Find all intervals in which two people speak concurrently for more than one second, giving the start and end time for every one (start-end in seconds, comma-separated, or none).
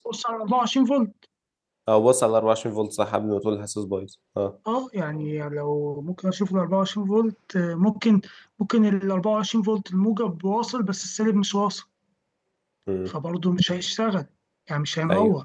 none